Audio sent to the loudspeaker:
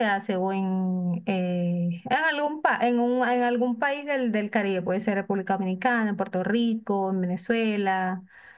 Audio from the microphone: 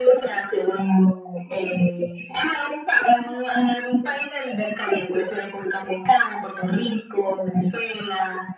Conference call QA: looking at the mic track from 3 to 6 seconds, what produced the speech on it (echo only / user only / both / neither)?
echo only